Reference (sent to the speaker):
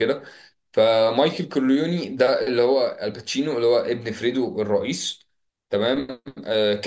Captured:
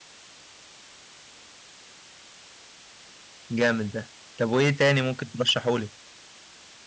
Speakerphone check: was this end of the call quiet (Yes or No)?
No